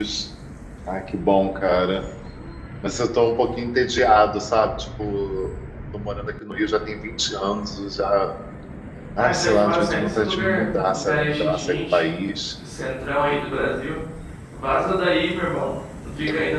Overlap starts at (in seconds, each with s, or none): 9.2 s